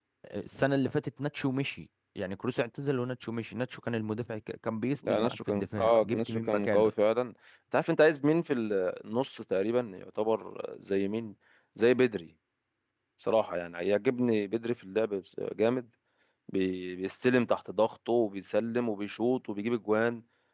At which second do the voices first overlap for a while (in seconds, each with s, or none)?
5.0 s